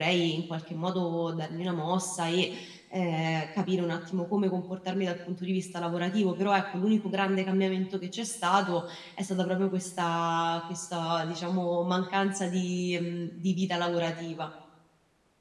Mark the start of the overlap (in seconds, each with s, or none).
none